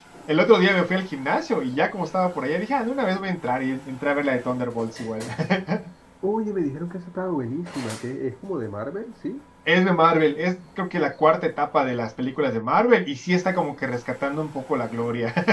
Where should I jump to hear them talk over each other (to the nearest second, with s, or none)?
none